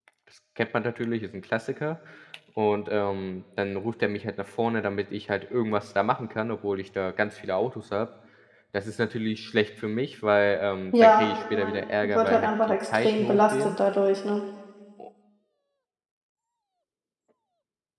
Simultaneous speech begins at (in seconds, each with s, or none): 10.9 s